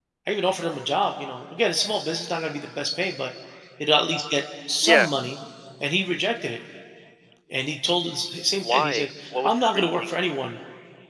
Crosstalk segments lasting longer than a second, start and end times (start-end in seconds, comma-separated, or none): 8.6-10.1